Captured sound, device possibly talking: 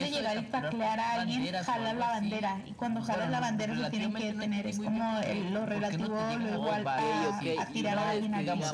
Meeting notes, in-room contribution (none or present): present